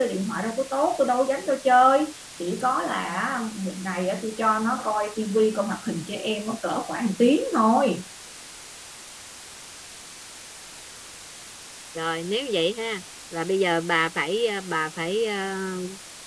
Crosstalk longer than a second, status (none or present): none